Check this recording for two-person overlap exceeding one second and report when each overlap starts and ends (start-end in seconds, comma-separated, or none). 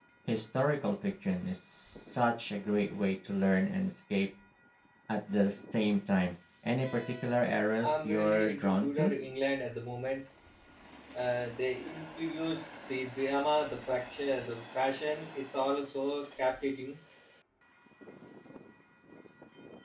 7.8-9.1